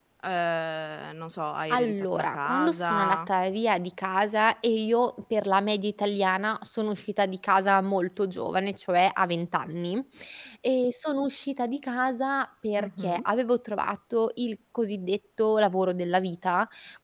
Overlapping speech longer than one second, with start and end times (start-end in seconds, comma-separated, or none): 1.7-3.3